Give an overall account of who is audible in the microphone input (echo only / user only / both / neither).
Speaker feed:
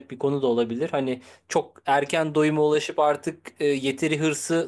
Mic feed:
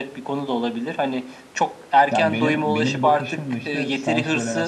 both